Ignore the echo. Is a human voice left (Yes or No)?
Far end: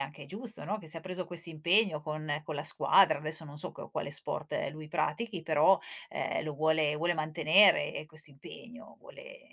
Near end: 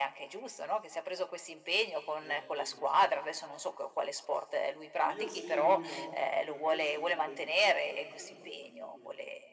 Yes